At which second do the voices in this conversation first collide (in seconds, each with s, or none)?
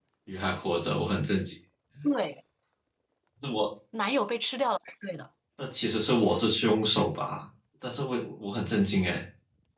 none